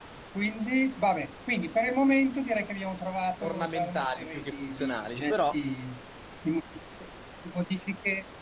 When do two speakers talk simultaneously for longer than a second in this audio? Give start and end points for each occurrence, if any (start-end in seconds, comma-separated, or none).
3.4-5.6